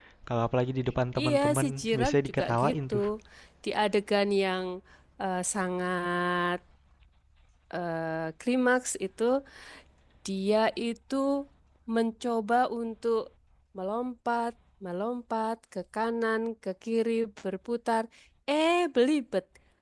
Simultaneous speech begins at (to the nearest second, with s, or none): 1 s